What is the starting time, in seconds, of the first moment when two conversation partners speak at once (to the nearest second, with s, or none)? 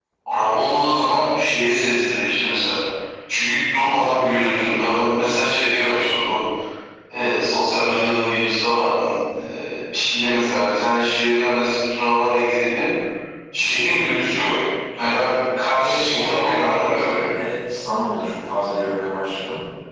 16 s